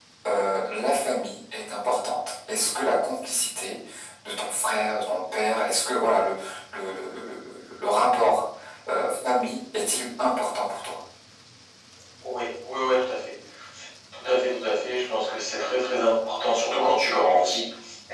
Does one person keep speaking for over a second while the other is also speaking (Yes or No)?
No